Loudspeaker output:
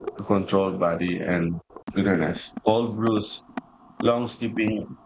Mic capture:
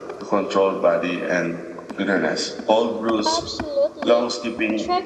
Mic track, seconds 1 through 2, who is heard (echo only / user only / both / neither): echo only